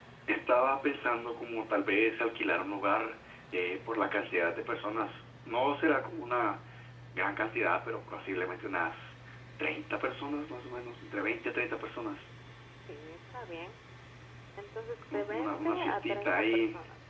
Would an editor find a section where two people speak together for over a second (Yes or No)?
Yes